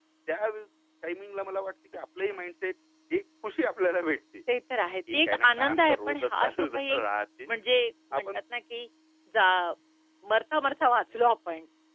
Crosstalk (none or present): present